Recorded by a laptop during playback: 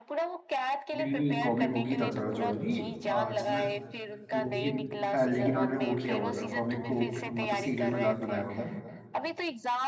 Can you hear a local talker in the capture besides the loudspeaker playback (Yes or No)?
Yes